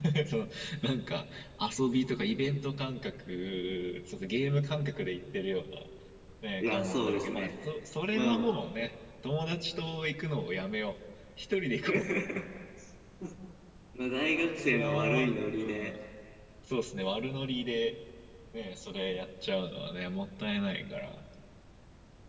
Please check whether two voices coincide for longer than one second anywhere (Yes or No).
Yes